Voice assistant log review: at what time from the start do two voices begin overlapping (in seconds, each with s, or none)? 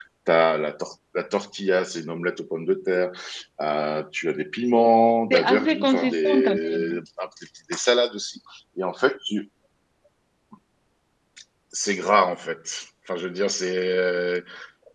5.3 s